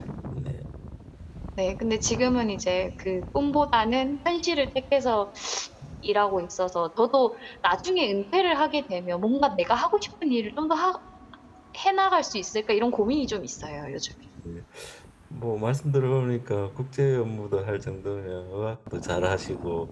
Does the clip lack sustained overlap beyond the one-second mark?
Yes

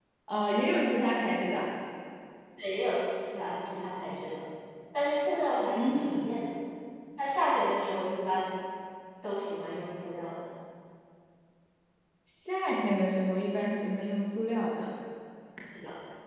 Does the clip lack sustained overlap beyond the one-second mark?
Yes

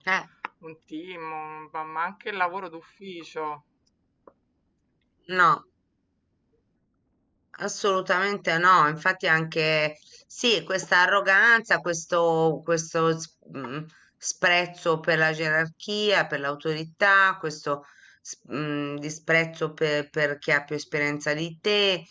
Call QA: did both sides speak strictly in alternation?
Yes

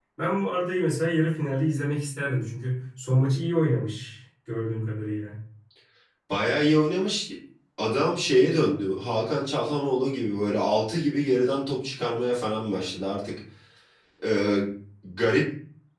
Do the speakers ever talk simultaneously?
No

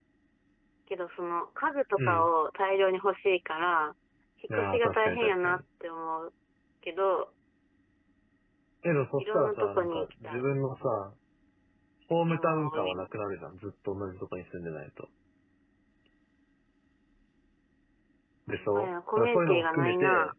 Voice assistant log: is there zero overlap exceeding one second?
No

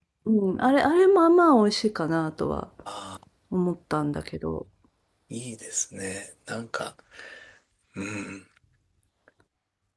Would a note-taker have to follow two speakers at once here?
No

